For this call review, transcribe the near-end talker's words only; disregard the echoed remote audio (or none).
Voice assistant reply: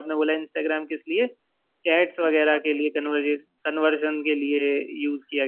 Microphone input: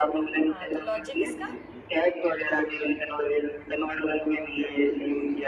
हाँ तो लॉजिक इसका